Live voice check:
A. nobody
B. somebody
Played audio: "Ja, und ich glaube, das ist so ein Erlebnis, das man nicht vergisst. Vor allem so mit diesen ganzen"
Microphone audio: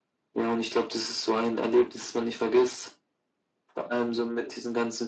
A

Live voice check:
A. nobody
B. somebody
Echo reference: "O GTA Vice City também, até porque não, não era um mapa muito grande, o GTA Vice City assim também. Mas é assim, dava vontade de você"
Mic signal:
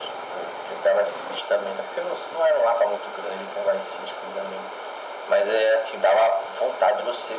A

